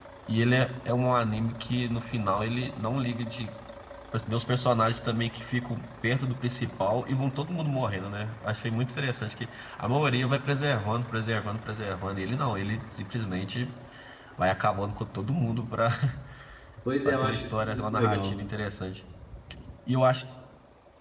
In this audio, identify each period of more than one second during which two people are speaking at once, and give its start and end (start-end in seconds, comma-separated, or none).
17.0-18.4